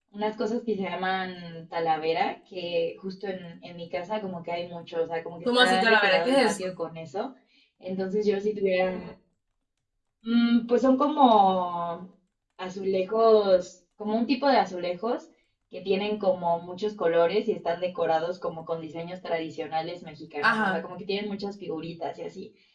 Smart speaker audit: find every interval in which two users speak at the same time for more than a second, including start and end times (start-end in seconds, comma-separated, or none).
5.5-6.7